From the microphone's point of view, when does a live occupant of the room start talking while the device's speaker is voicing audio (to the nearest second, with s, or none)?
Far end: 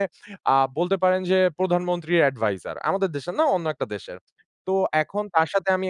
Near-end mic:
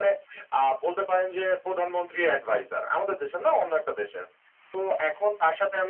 none